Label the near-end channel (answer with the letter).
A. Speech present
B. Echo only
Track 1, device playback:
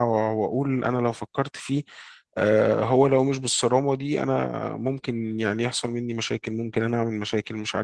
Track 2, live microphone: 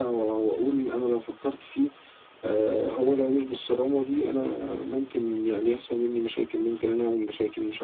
B